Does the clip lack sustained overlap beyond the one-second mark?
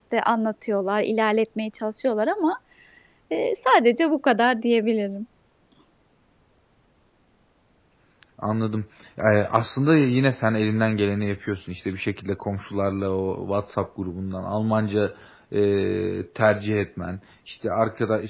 Yes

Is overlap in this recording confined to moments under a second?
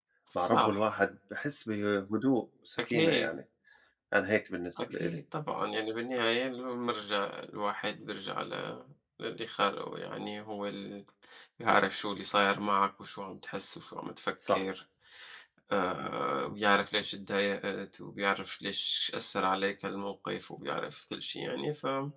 Yes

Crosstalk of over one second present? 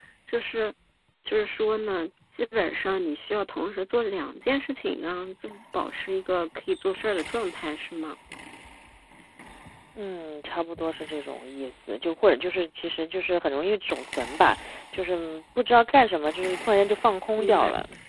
No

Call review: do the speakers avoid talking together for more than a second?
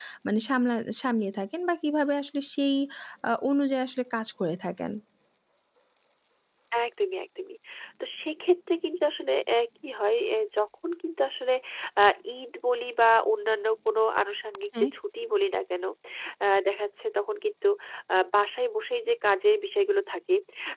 Yes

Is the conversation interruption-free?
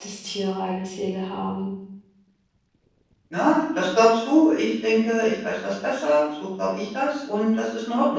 Yes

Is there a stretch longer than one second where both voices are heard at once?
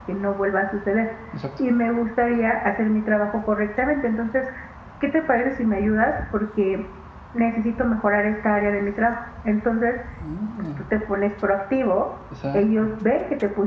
No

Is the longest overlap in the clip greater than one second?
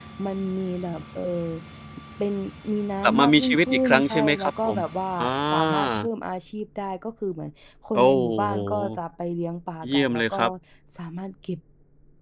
Yes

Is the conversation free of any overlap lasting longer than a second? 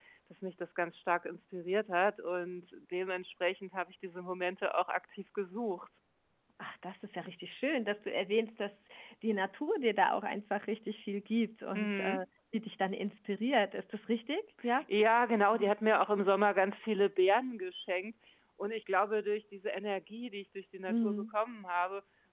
Yes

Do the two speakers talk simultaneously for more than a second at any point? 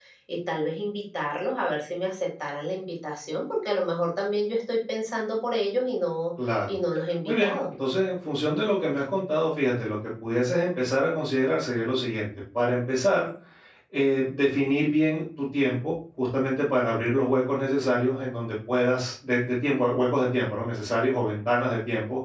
No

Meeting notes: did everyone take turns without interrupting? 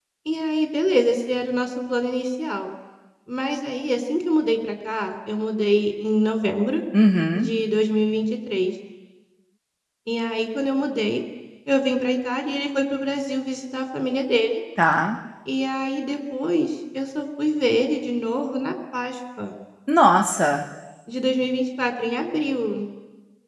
Yes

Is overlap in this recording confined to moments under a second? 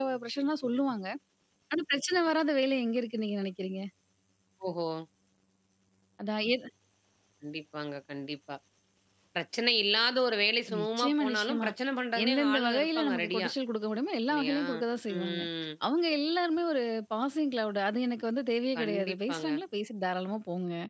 No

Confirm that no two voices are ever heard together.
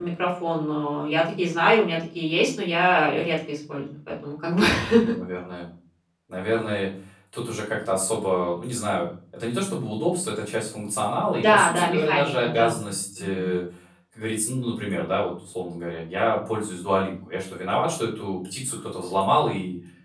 No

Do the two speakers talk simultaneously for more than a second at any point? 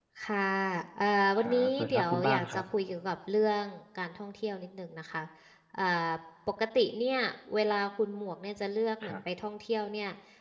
Yes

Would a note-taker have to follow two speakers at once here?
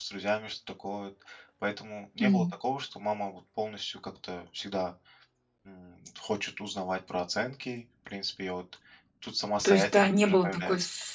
Yes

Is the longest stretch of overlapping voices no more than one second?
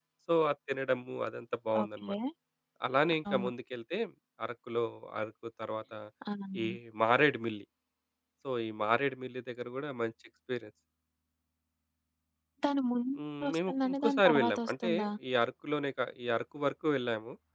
No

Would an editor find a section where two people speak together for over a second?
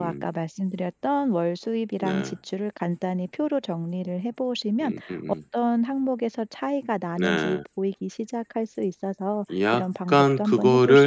Yes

